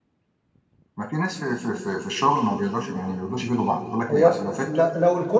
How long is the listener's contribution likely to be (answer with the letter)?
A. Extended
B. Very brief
A